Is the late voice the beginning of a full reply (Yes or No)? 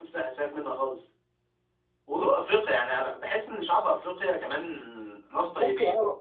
Yes